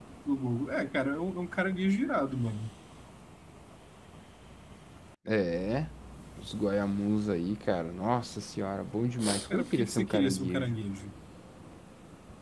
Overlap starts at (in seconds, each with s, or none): 9.5 s